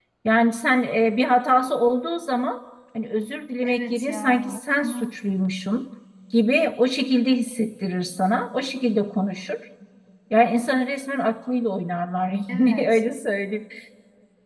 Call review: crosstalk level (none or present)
present